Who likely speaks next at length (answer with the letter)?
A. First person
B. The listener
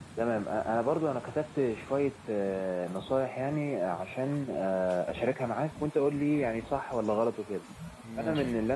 A